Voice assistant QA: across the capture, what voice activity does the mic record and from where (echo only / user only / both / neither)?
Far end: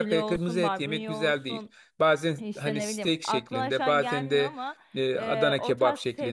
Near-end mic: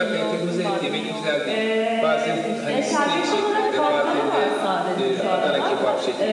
both